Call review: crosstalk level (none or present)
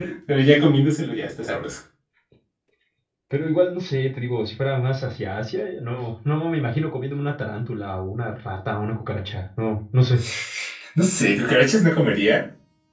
none